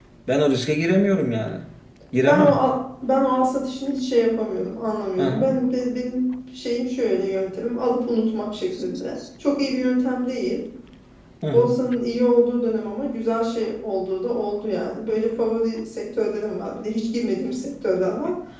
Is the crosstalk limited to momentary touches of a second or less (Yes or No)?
Yes